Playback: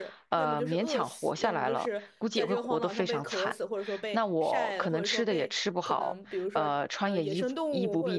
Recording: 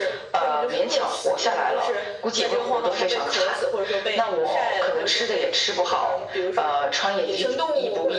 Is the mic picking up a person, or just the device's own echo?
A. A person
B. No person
B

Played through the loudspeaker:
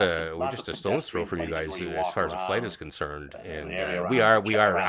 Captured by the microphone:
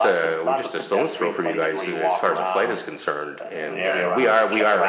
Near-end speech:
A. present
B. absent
B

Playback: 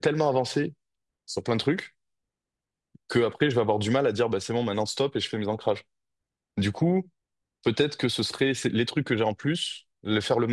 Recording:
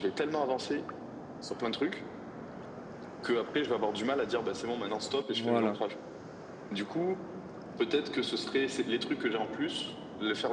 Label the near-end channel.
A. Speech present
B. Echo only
A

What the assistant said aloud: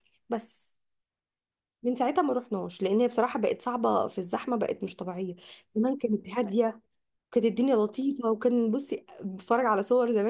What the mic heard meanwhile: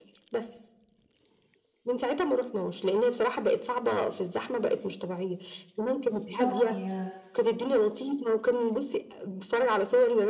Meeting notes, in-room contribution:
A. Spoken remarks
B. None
A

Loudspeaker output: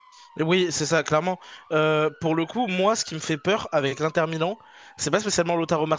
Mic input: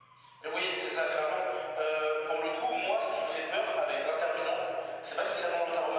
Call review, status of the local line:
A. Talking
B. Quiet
B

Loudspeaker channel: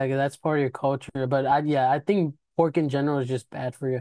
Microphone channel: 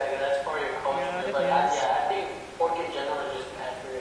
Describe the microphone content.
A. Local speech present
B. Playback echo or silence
A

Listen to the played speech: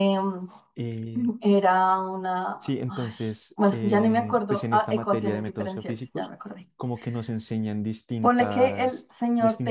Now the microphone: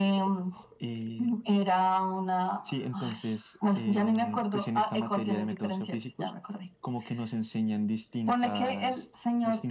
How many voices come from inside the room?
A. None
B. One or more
A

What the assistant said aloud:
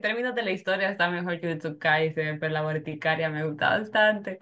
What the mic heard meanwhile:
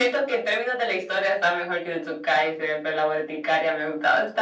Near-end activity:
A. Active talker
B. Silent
B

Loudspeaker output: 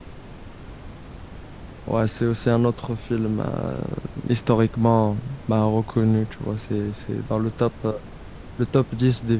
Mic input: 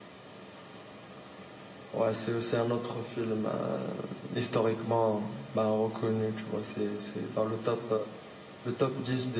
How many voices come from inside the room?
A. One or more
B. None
B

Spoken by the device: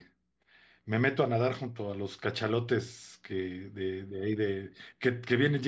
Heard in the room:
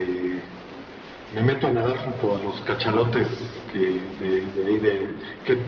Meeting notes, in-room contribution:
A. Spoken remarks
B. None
B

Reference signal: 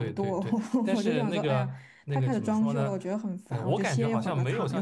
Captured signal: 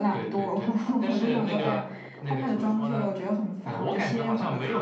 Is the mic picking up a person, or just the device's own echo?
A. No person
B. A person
A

